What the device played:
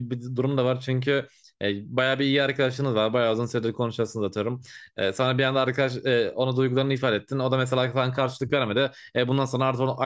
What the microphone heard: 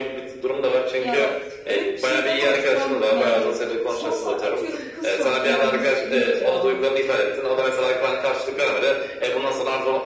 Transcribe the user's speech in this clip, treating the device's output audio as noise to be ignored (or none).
Ya öyle bir şeydi ama sen yani son sa- atıyorum kız sor yani nasıl diyeyim ki ya?